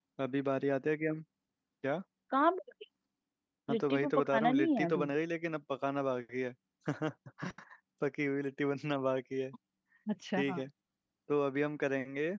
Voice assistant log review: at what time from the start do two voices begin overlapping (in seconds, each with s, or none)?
3.7 s